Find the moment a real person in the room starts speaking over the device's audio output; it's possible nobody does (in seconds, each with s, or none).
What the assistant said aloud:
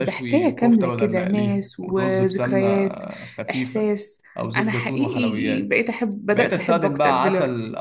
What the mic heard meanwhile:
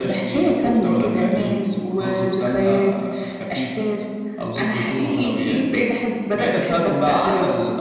none